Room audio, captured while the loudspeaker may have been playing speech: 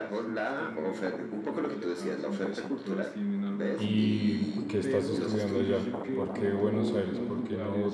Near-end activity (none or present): present